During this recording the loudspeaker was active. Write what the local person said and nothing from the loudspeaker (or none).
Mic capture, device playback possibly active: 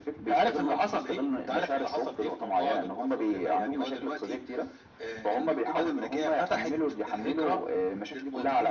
none